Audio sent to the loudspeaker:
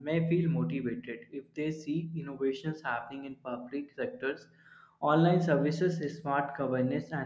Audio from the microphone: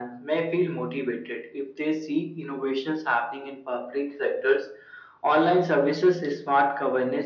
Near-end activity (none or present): none